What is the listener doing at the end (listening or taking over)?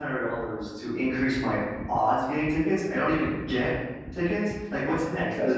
listening